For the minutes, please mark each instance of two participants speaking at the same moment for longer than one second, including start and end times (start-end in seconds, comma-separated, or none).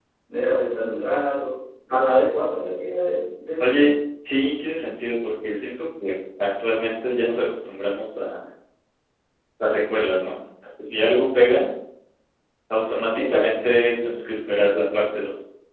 none